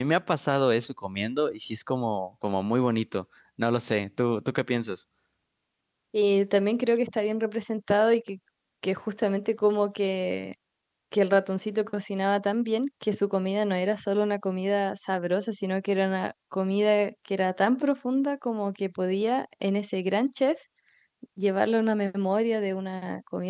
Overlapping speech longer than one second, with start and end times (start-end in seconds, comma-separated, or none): none